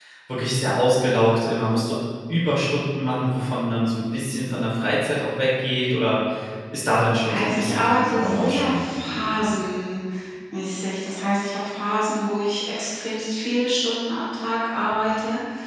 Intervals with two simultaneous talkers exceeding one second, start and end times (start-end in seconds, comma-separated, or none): 7.2-9.4